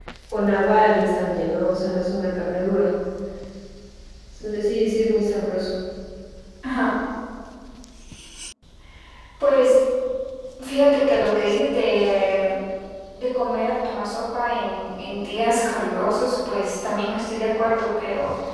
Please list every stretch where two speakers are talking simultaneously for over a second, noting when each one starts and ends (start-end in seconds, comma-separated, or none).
none